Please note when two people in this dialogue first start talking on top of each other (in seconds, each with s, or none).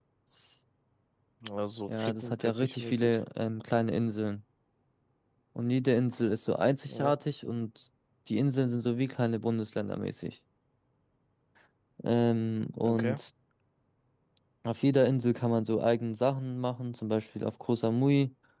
1.9 s